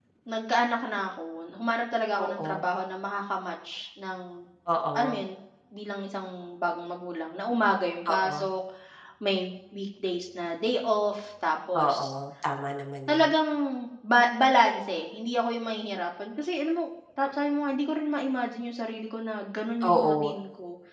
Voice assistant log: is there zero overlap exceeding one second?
Yes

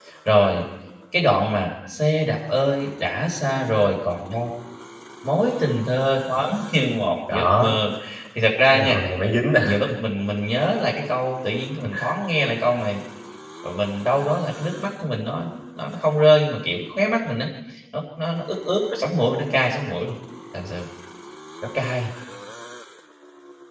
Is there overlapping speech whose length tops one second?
No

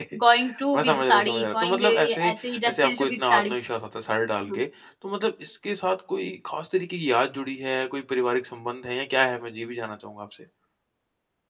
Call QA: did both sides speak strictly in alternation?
No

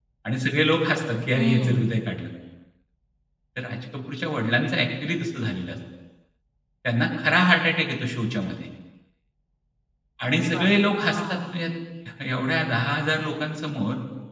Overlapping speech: Yes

